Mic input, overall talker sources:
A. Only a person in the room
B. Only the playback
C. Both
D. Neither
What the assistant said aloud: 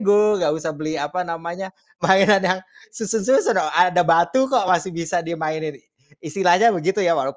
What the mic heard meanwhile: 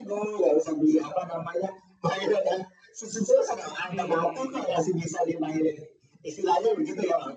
C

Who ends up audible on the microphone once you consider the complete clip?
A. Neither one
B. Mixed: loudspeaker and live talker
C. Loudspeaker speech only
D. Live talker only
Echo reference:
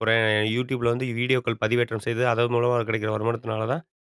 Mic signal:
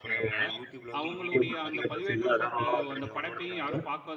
B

